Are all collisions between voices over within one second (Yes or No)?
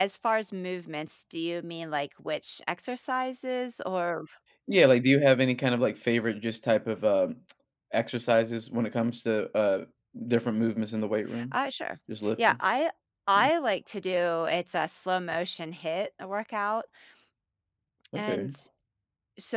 Yes